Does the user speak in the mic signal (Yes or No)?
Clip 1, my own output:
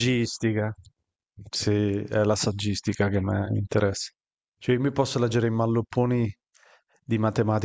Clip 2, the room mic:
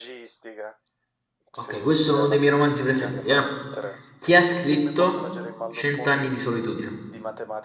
Yes